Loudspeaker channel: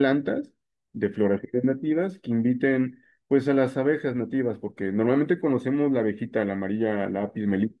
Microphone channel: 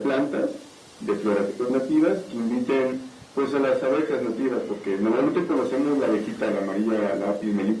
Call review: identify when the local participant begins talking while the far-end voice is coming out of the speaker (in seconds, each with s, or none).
none